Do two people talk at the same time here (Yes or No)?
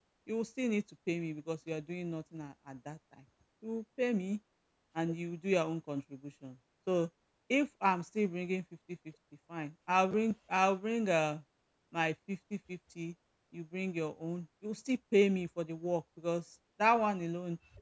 No